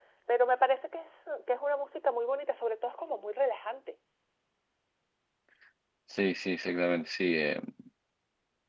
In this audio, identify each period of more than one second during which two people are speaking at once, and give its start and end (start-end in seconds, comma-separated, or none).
none